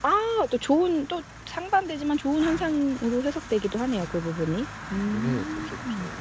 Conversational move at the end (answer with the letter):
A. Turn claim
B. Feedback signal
A